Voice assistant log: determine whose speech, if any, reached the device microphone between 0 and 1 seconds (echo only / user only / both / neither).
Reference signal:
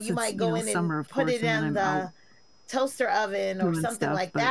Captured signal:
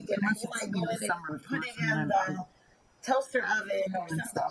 echo only